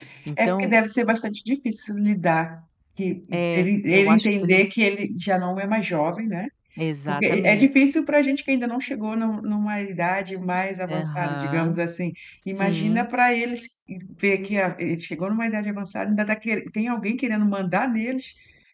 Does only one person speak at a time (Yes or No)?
No